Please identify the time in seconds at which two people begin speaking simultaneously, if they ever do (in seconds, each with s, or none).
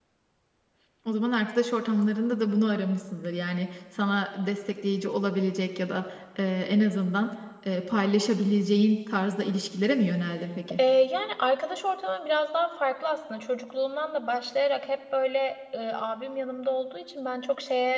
none